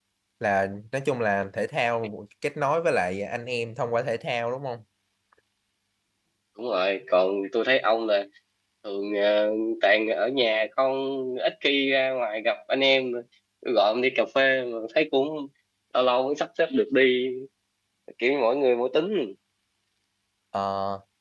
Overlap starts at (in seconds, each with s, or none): none